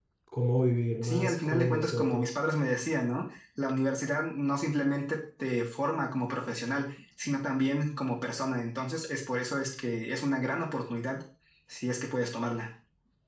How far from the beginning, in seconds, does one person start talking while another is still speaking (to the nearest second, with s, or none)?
1 s